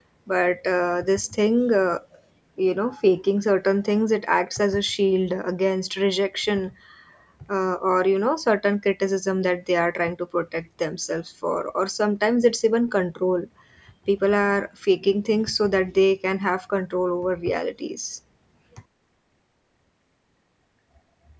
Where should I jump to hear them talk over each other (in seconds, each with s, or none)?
none